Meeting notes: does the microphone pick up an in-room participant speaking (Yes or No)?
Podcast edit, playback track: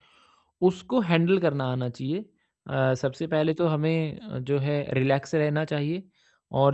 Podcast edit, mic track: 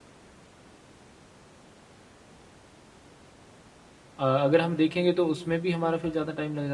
Yes